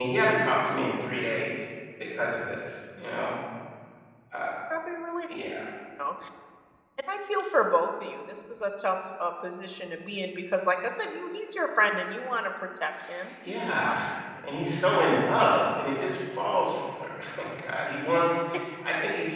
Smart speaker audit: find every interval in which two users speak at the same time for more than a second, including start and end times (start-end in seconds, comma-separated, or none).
none